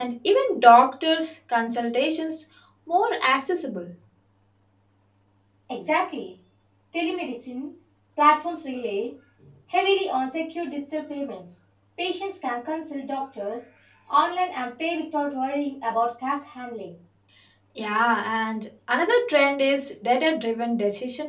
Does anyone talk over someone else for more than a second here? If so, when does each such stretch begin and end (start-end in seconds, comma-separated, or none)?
none